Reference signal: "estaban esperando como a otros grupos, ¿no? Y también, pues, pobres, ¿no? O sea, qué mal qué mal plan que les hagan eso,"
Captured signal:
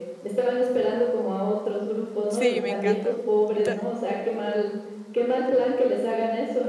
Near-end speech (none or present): present